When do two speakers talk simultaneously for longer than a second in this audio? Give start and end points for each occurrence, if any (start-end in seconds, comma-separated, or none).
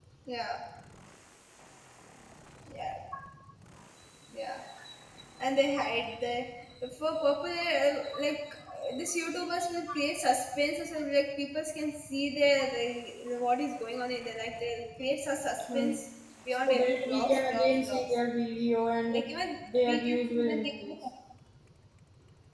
16.5-18.0, 19.7-20.9